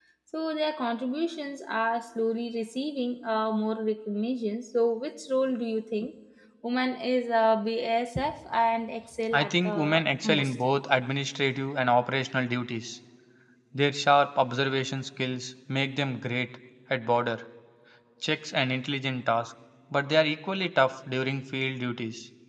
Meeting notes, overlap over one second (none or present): present